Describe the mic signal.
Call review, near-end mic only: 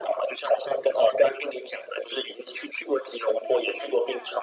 both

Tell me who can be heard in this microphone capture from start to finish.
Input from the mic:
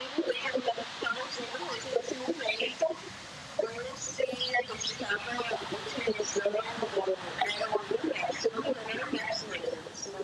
echo only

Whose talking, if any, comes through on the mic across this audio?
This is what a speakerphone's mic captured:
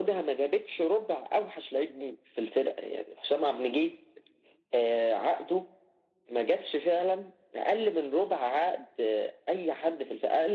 echo only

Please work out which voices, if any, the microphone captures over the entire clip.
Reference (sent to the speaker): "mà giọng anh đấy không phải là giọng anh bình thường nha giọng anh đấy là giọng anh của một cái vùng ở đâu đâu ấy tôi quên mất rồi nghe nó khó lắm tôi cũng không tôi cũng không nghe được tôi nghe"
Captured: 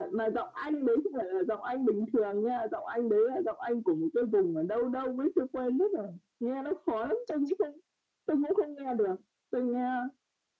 echo only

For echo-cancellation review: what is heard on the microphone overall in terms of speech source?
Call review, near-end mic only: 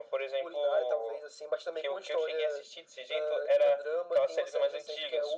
echo only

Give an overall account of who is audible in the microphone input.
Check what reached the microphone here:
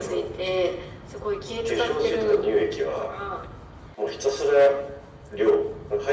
echo only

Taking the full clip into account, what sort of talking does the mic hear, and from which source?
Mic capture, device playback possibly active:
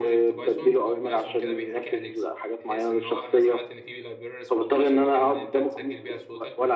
both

